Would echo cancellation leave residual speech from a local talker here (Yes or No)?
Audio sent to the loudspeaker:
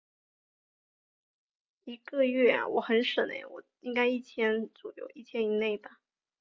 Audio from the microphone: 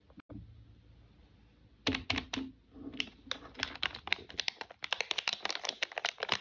No